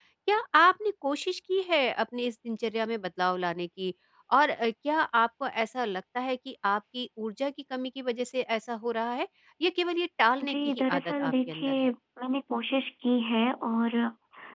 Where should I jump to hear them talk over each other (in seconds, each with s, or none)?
10.4 s